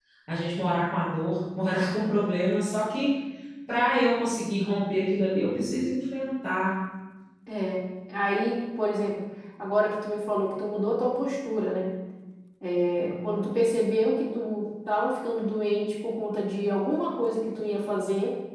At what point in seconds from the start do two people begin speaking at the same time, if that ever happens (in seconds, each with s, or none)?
none